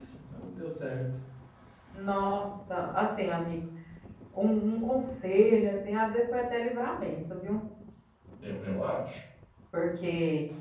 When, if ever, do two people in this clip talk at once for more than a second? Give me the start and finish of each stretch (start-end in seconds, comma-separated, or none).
none